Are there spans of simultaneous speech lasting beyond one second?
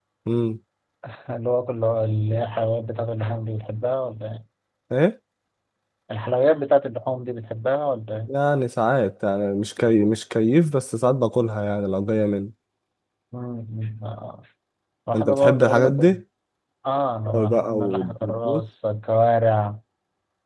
Yes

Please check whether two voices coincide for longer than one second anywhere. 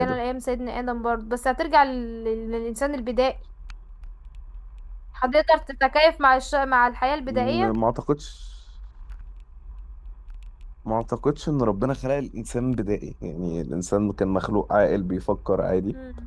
No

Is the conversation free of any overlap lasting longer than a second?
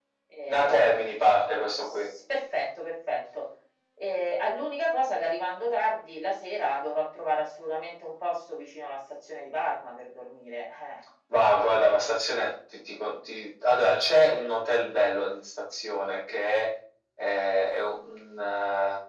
Yes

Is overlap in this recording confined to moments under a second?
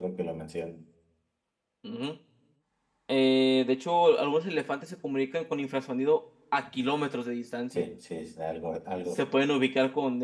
Yes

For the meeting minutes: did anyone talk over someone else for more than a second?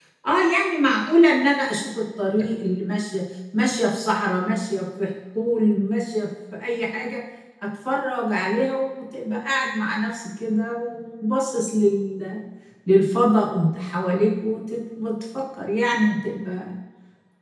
No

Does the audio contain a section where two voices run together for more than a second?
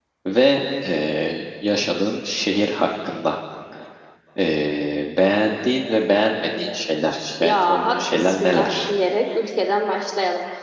Yes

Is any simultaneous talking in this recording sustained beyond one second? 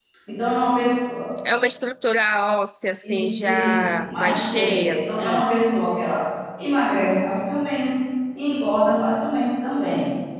Yes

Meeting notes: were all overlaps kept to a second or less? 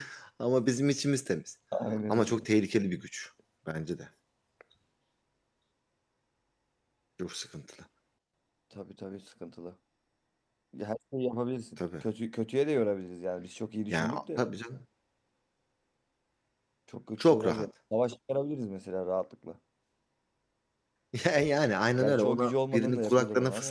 No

